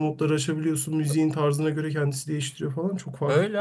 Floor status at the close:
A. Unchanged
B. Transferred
B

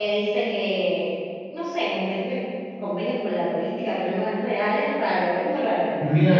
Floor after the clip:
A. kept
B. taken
B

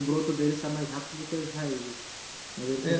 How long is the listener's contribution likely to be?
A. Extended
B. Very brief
A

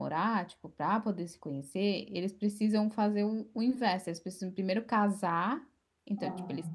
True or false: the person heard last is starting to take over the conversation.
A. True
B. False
B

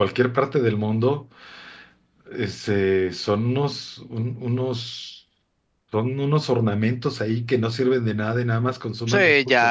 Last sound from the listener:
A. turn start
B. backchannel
A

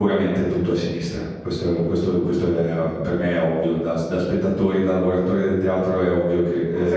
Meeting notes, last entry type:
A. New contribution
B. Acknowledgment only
A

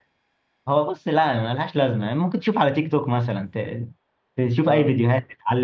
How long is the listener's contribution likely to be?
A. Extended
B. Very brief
B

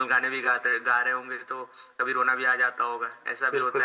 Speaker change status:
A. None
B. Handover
B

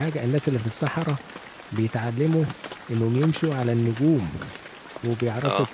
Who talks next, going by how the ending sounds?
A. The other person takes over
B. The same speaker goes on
B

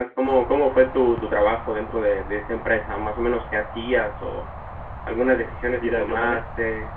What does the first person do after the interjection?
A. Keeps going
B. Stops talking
B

